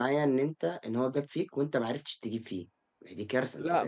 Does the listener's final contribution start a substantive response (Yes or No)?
Yes